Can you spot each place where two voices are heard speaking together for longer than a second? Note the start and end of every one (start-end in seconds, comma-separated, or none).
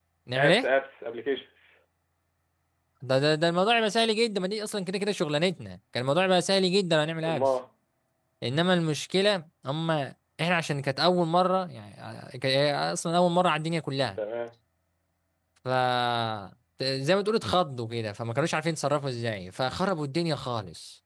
none